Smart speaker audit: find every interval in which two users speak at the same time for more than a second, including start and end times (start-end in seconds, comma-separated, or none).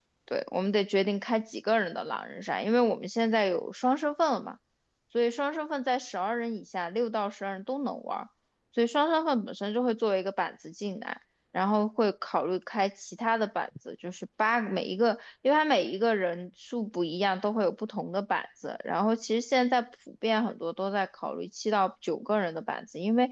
none